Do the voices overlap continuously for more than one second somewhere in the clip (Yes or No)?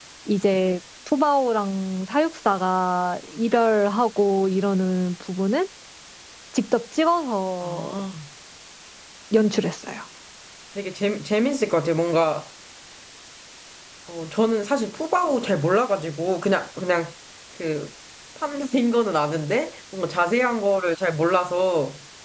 No